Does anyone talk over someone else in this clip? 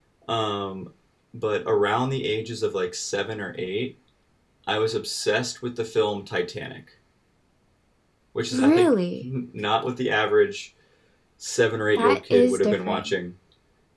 Yes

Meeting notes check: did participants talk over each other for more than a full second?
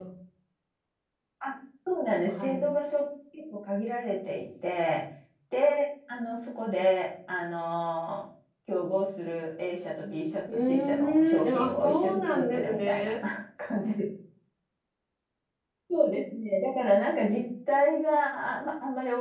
Yes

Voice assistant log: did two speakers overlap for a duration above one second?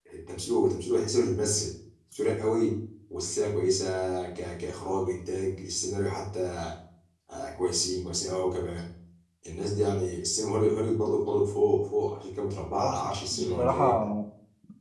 Yes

